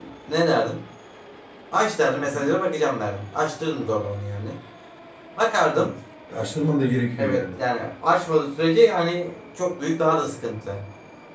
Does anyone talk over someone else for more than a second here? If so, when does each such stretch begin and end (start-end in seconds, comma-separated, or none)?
none